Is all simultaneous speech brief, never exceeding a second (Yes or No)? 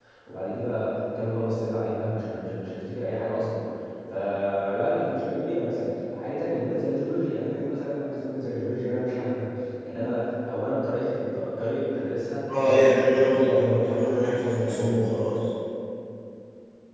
No